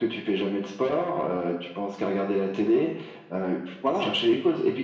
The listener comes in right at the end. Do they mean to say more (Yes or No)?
No